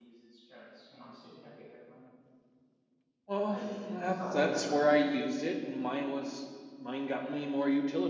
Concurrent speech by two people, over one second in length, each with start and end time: 3.5-4.8

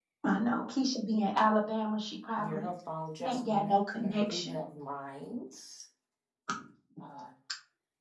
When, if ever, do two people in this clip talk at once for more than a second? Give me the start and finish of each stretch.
3.3-4.6

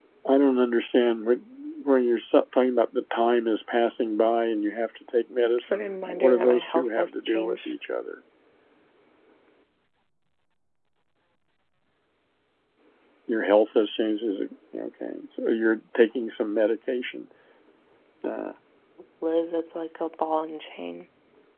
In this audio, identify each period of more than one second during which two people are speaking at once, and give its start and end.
5.6-7.7

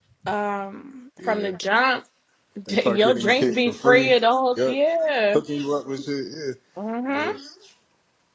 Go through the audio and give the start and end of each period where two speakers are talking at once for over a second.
2.8-4.1

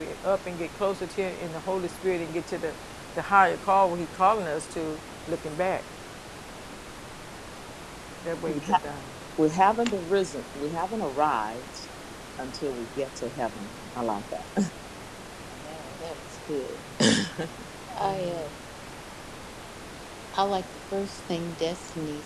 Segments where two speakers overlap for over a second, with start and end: none

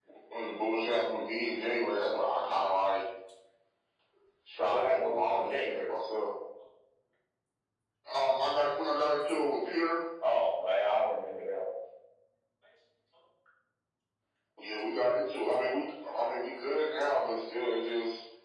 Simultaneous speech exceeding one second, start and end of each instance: 4.7-5.9

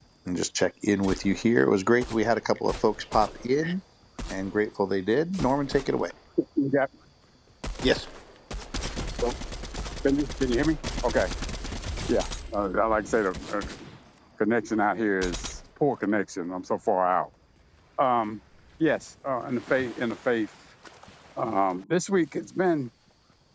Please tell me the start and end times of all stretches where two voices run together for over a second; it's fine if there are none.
none

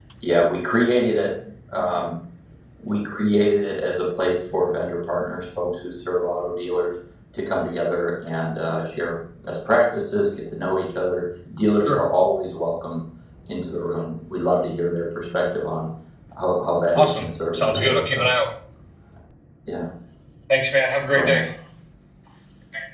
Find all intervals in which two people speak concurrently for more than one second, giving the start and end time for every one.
16.9-18.3

